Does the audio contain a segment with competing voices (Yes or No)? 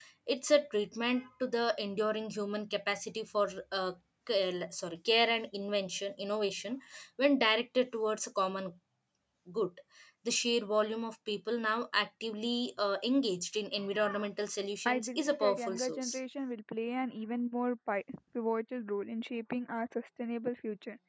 Yes